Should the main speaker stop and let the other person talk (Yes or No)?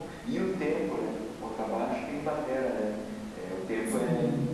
Yes